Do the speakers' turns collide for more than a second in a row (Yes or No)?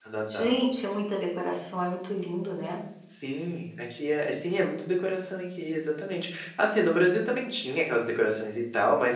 No